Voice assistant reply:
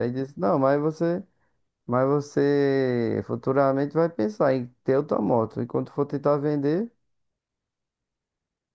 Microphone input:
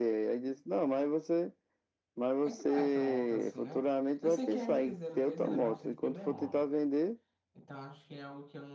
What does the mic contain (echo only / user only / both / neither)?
both